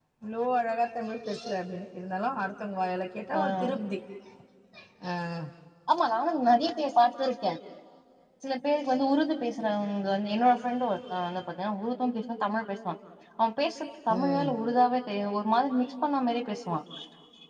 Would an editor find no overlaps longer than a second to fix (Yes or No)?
Yes